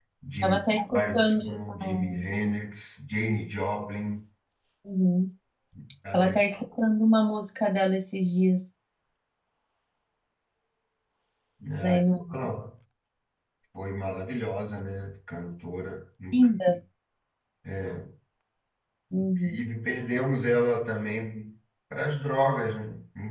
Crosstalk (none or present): present